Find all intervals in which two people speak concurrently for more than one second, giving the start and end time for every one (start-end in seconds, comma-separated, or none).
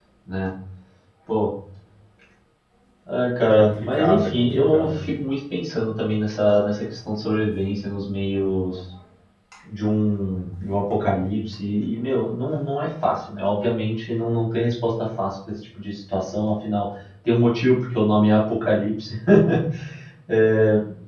3.4-5.0